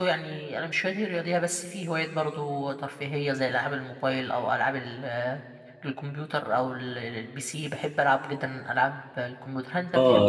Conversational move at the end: taking over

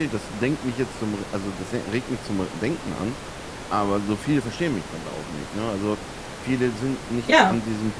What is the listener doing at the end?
listening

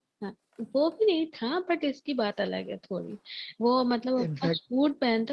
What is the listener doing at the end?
listening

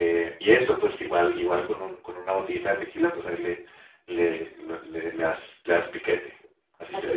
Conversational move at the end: taking over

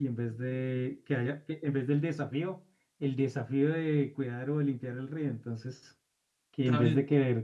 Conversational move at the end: listening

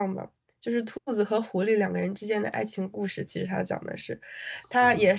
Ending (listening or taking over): listening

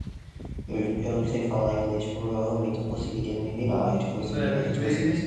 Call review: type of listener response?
taking over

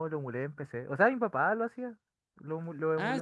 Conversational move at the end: taking over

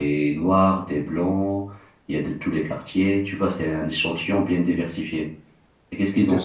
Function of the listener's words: listening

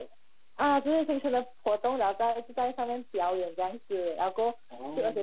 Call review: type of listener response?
listening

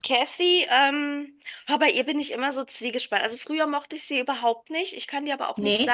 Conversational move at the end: listening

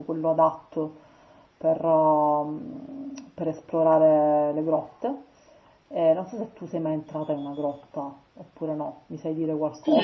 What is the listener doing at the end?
taking over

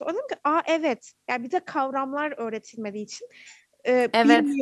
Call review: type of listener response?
listening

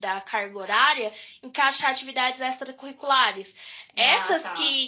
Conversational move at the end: listening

